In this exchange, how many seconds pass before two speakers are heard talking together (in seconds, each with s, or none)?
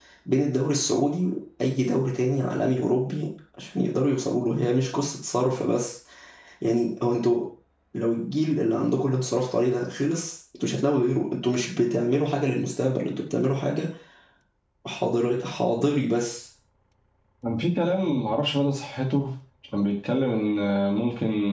none